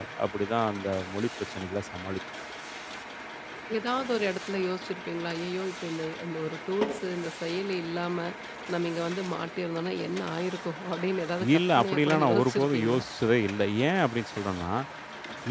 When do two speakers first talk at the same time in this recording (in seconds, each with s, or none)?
11.4 s